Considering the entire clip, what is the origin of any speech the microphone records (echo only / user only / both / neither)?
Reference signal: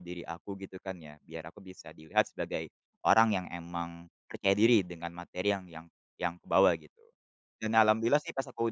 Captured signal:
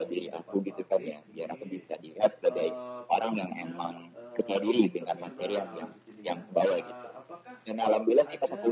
both